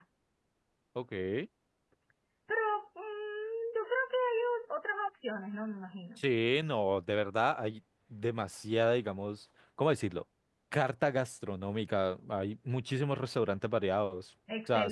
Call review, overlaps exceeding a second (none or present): none